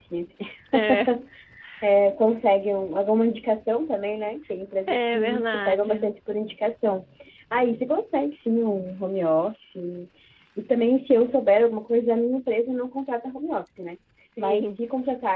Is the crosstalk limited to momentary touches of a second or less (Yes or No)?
No